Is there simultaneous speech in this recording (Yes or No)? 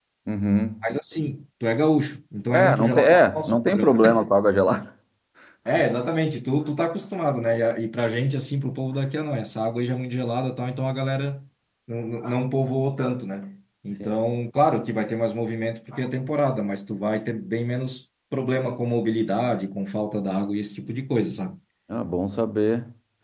Yes